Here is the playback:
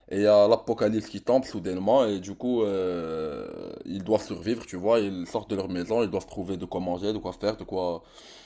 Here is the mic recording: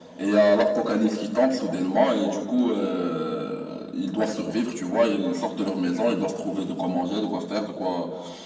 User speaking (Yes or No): No